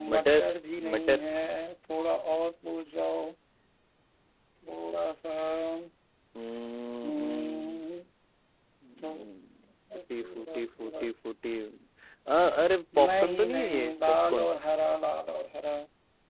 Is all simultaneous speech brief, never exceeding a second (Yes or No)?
No